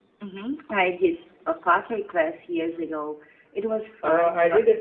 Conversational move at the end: taking over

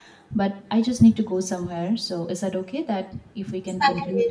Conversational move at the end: taking over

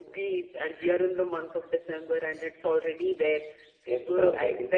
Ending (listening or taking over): listening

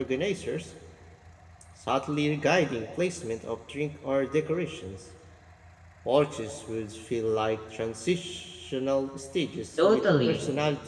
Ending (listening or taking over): taking over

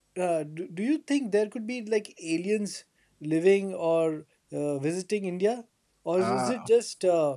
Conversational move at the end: listening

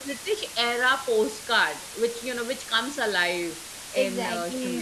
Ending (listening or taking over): taking over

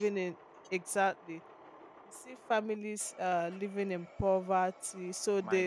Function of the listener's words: listening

